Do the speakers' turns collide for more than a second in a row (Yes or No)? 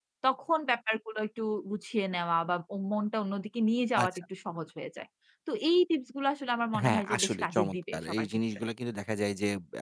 Yes